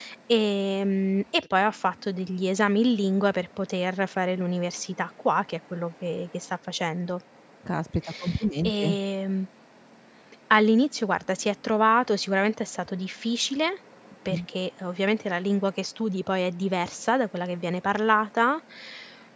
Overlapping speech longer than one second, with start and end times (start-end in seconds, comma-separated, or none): none